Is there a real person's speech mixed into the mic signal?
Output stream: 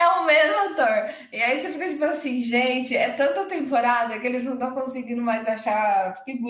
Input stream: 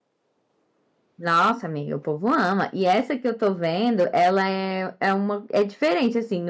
Yes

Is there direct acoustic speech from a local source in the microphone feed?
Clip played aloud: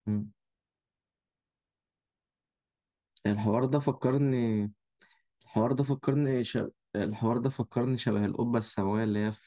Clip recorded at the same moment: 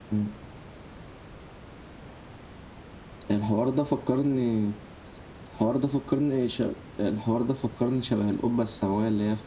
No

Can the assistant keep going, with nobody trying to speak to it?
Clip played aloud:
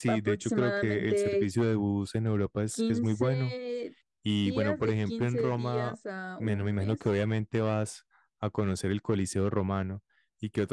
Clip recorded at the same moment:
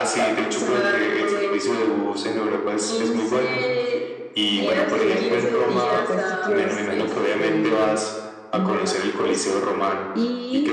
No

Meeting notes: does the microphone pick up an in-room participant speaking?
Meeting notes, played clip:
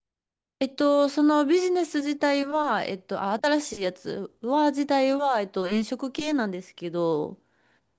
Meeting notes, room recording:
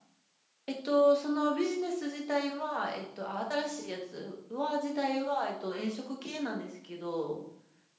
No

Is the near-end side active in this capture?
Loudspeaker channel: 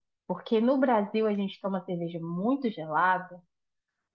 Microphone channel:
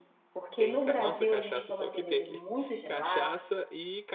Yes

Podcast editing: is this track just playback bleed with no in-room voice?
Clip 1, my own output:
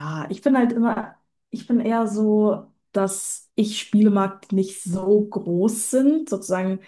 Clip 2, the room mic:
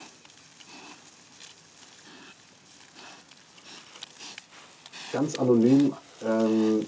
No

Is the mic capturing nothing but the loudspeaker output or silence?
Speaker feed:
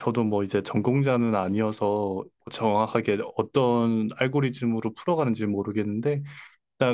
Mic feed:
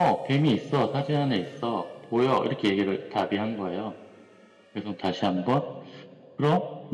No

